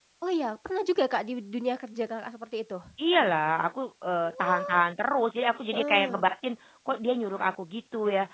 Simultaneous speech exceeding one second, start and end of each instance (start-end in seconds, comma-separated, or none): none